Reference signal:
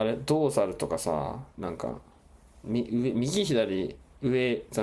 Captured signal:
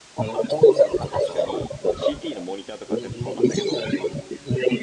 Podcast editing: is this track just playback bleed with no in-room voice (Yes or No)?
No